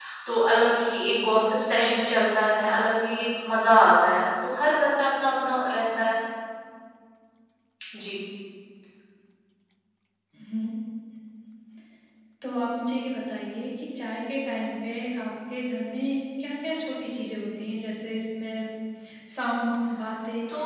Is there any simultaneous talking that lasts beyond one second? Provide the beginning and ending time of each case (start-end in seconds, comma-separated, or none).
none